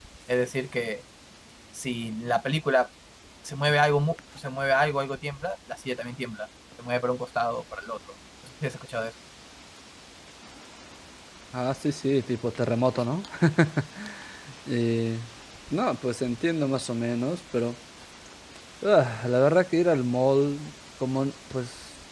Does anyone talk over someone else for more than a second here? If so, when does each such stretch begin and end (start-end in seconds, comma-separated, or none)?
none